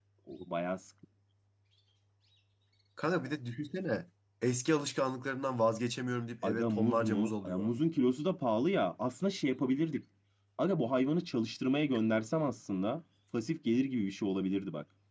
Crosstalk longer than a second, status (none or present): present